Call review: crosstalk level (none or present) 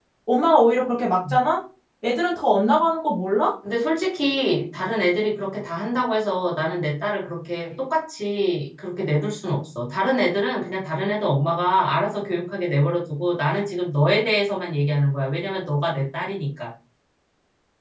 none